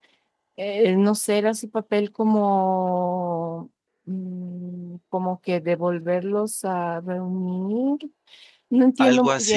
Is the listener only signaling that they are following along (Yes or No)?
No